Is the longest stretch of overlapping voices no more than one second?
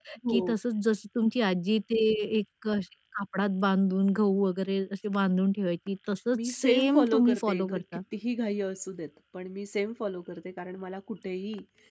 No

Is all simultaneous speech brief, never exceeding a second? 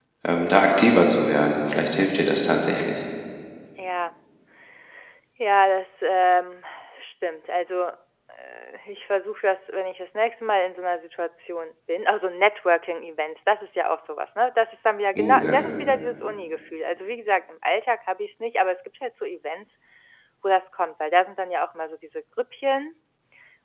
Yes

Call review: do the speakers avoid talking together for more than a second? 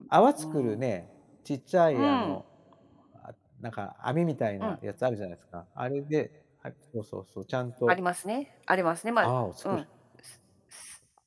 Yes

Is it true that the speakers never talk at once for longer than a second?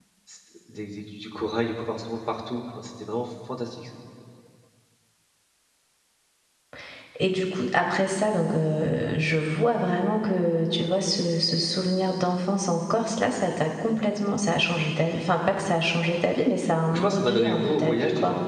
No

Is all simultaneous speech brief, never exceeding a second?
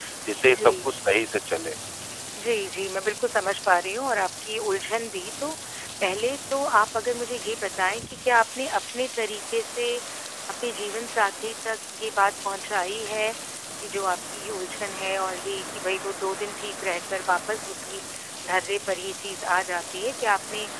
Yes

